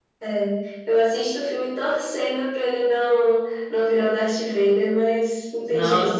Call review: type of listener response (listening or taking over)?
taking over